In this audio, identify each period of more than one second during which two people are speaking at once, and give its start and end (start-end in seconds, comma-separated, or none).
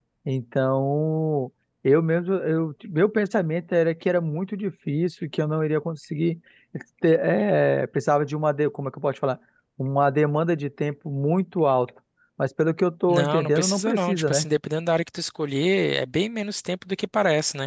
13.1-14.5